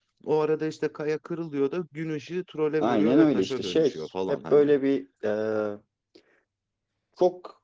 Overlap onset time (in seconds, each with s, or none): 2.8 s